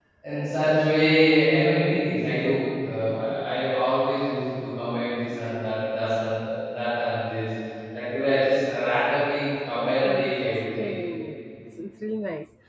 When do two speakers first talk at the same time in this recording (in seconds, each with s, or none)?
9.7 s